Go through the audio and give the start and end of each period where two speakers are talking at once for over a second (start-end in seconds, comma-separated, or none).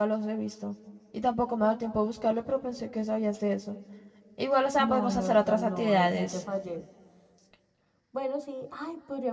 4.8-6.4